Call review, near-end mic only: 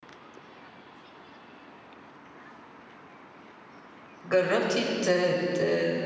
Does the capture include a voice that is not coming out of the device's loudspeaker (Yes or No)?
Yes